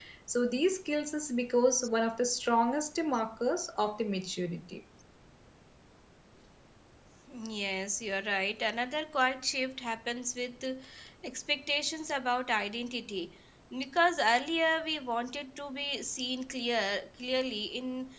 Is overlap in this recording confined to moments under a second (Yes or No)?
Yes